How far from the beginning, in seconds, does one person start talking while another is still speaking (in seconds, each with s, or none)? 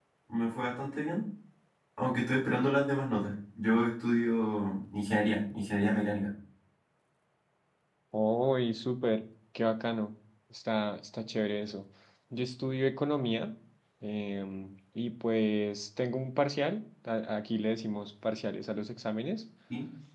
none